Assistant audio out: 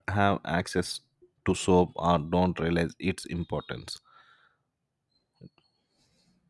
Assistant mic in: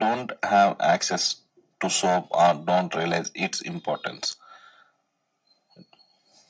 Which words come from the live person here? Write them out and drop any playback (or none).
none